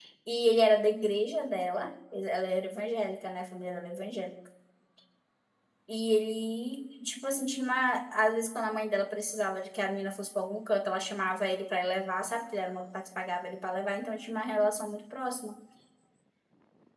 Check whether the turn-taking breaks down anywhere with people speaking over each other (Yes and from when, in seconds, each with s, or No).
No